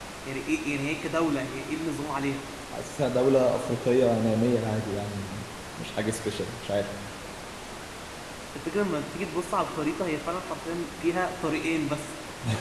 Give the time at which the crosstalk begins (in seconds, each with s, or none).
none